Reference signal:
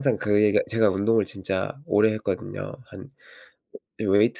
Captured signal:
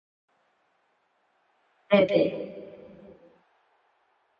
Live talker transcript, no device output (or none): 네네.